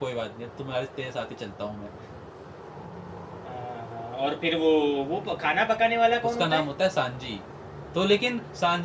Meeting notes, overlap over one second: none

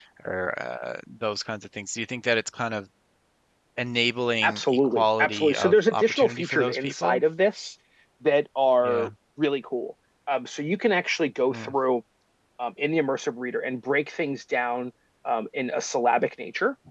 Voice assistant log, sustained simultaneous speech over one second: present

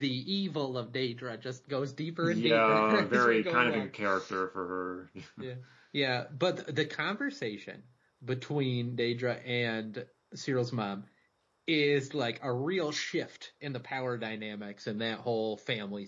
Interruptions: present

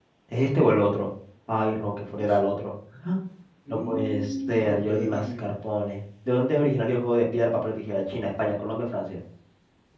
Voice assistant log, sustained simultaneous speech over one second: present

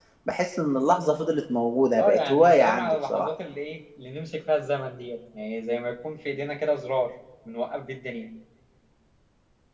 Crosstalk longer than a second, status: present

